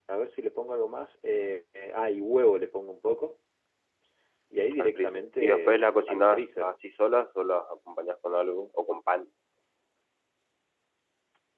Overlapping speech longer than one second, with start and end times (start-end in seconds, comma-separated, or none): 4.8-6.7